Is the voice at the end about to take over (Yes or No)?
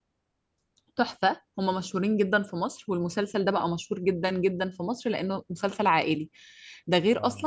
No